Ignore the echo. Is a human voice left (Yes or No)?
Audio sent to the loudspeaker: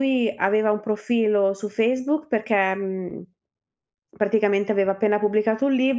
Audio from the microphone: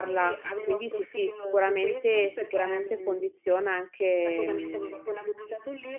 Yes